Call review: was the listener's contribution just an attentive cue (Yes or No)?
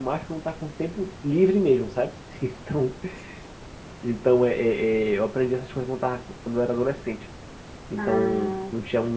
Yes